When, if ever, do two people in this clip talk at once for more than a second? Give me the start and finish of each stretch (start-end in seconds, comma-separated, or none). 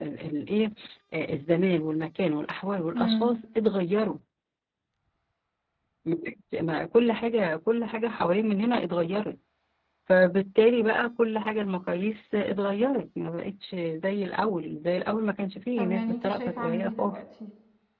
15.8-17.2